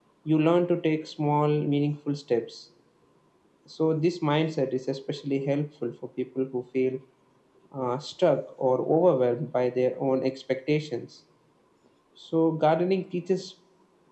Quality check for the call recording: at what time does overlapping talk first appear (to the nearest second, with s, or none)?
none